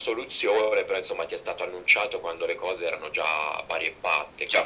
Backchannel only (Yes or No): No